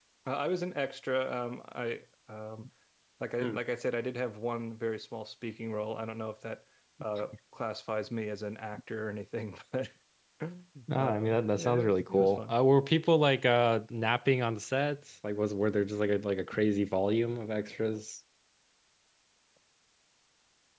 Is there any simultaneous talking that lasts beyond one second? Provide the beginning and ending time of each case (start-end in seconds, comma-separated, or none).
10.9-12.6